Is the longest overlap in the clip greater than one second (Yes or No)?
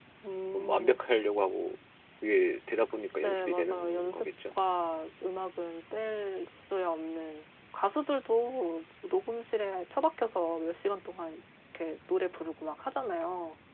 Yes